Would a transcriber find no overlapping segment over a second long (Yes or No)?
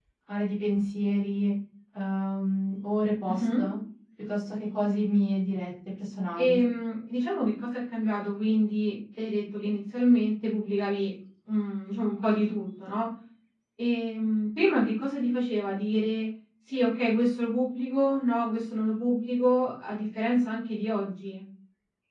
Yes